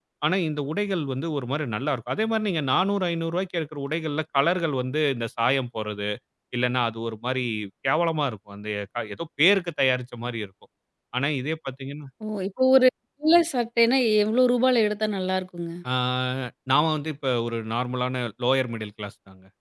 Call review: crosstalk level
none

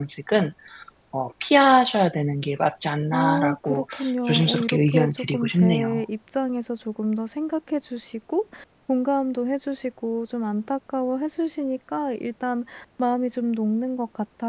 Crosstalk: present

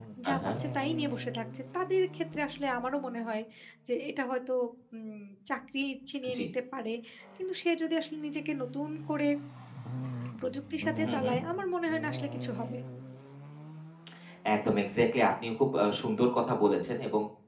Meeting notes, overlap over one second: none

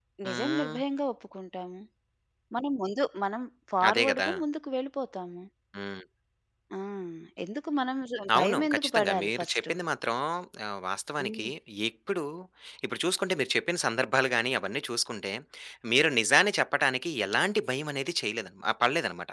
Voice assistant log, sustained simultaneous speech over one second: present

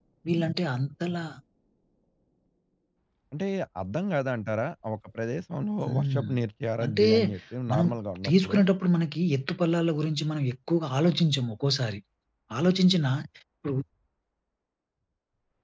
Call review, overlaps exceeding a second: none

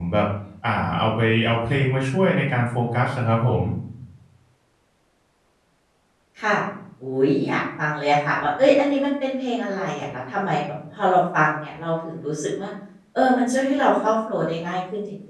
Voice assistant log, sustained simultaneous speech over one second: none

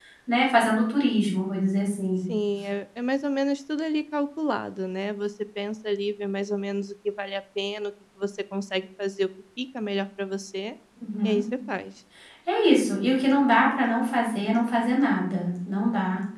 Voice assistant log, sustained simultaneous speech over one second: none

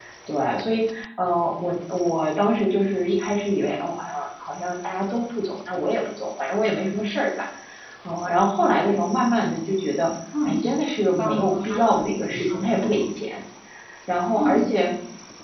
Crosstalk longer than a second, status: present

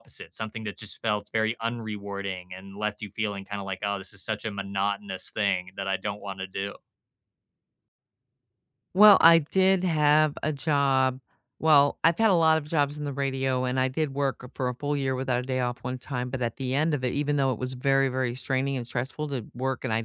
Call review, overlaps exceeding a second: none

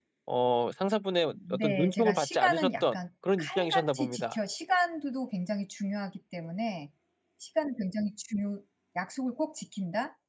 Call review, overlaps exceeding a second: present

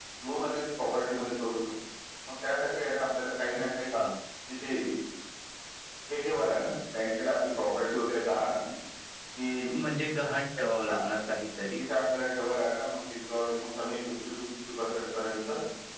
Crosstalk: none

